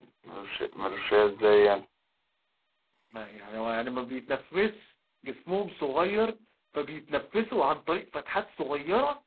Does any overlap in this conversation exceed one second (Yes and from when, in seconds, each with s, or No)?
No